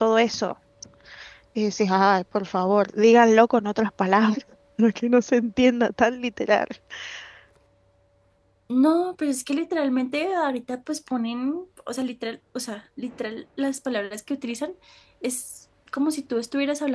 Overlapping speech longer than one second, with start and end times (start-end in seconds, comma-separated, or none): none